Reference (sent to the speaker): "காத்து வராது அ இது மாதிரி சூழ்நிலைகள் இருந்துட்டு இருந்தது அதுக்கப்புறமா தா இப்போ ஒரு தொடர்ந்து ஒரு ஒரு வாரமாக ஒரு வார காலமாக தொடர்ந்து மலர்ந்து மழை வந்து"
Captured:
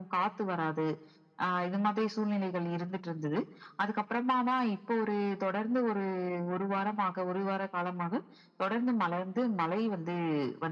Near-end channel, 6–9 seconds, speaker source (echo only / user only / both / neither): echo only